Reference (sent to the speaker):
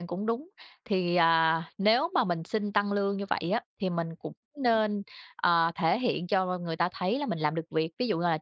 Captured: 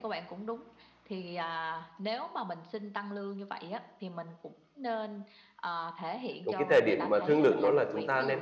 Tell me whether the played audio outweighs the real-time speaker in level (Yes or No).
No